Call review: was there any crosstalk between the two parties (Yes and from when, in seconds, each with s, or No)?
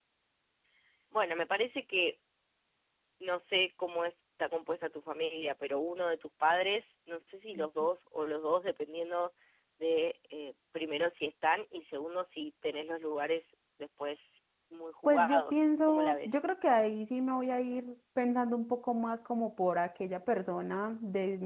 Yes, from 15.0 s